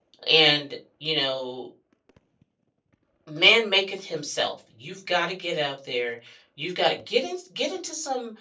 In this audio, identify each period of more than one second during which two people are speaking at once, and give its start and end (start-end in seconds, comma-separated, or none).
none